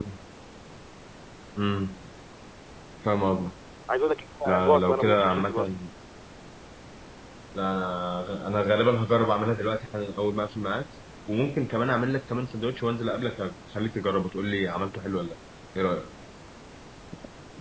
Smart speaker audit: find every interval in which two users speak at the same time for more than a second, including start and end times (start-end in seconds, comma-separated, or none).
4.5-5.7